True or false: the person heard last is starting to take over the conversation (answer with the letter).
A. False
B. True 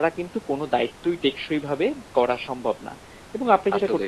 A